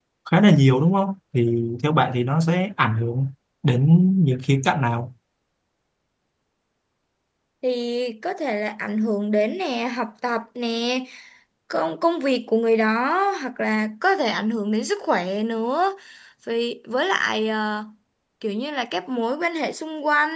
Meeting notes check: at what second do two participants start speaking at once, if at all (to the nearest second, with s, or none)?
none